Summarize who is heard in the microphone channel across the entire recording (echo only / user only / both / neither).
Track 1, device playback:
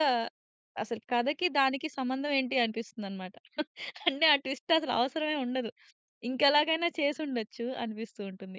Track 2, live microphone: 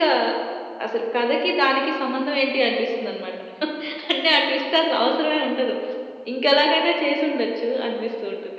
echo only